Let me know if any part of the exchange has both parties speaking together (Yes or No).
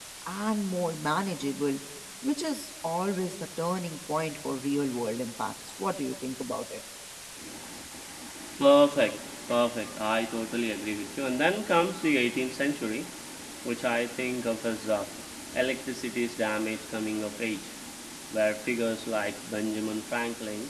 No